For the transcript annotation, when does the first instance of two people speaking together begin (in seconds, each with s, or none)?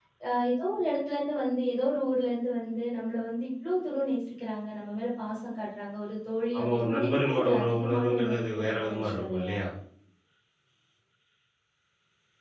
6.5 s